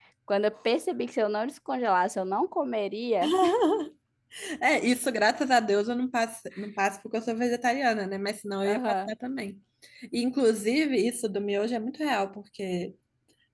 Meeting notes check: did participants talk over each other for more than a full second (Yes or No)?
No